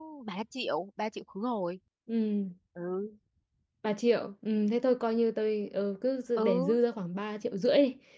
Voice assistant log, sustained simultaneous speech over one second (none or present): none